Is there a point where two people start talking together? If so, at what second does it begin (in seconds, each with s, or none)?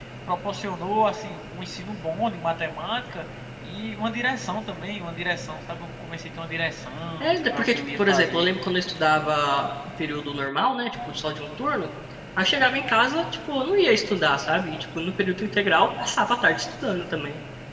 7.2 s